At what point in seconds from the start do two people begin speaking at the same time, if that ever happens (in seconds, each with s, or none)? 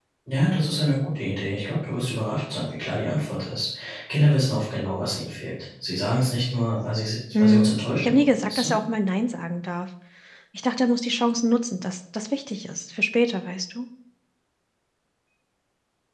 7.3 s